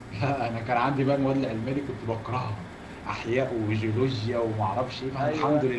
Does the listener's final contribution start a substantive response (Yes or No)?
No